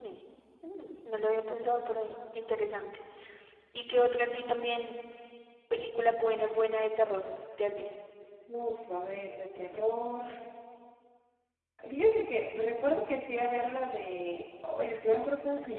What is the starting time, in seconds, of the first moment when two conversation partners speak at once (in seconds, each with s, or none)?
none